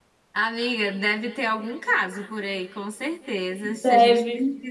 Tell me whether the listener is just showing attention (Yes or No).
Yes